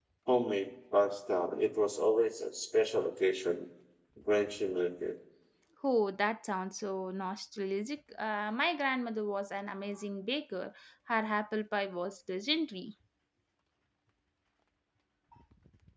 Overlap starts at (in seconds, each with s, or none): none